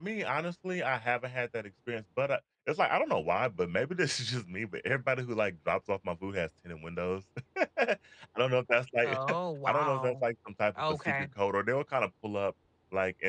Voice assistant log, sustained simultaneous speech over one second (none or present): none